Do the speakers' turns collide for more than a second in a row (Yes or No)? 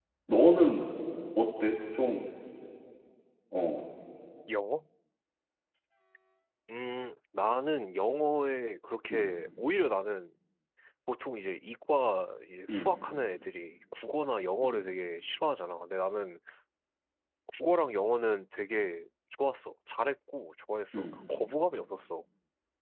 No